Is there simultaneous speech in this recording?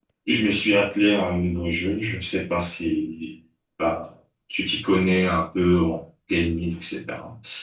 No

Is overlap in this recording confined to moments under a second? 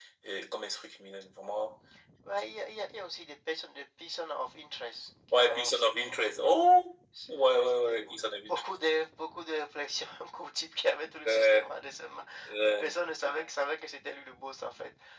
No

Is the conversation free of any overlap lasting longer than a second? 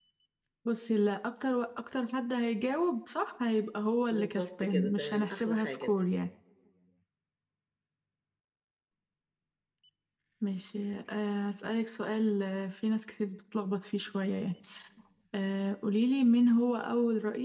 No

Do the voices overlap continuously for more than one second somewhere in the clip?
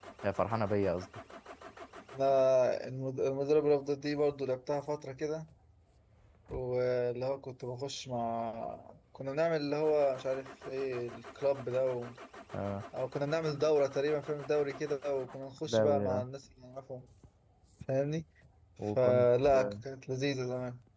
No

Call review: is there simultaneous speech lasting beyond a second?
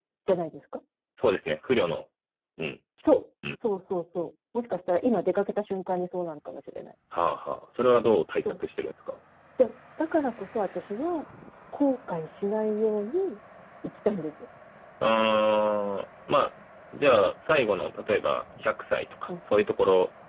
No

